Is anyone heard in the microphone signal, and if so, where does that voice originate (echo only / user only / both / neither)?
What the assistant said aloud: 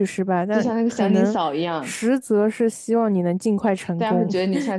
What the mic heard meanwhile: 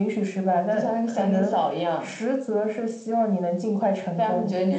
echo only